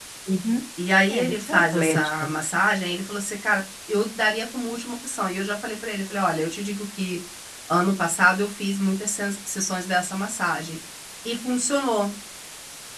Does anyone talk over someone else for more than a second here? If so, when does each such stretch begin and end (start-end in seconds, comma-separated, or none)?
1.1-2.3